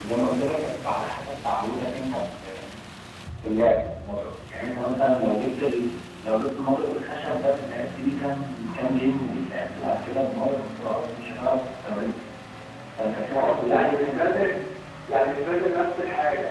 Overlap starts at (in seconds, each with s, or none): 13.3 s